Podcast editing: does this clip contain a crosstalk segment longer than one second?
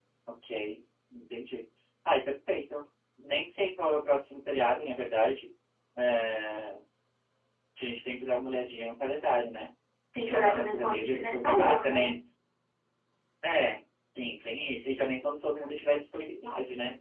Yes, from 10.2 s

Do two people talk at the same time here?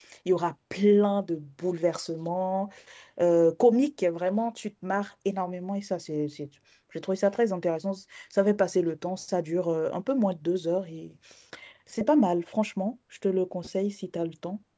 No

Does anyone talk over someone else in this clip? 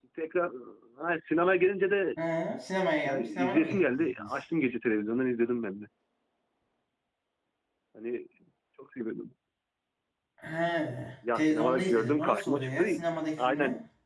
Yes, from 3.0 s

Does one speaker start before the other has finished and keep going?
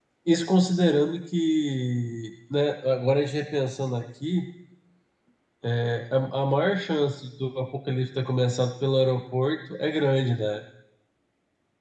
No

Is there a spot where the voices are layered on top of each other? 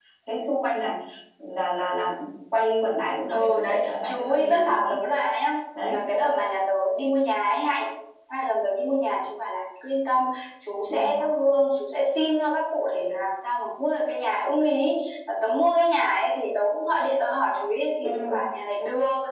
Yes, from 3.3 s

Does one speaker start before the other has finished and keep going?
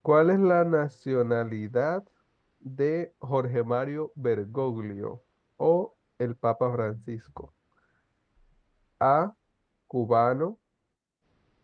No

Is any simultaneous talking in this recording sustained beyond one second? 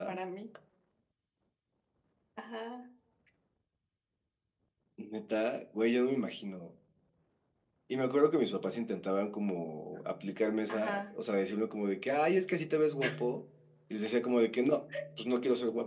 No

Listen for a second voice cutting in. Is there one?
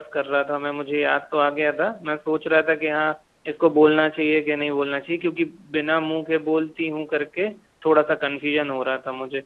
No

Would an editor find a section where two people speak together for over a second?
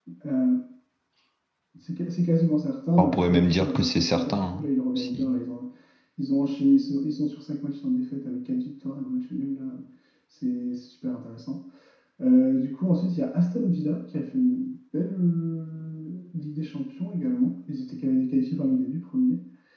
Yes, from 3.0 s

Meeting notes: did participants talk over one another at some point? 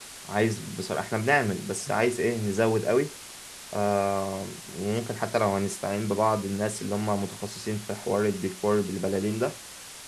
No

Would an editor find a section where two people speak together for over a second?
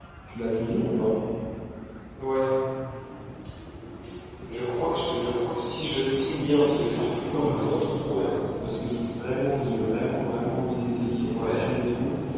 Yes, from 6.0 s

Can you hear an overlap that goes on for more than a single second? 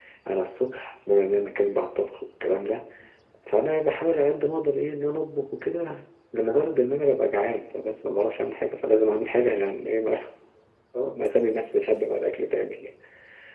No

